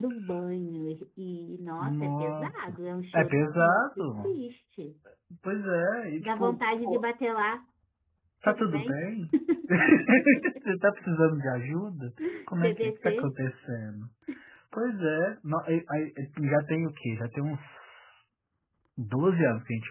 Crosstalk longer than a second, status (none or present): present